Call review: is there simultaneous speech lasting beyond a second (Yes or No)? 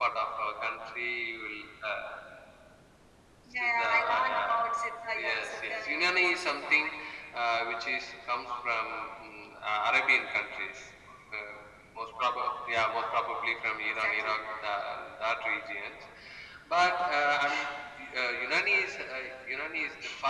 Yes